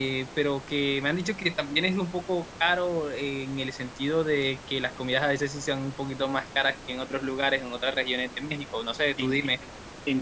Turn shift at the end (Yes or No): Yes